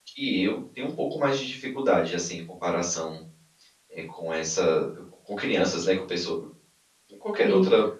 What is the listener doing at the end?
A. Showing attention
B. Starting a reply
B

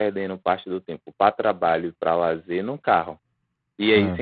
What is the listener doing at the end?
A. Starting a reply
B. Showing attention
B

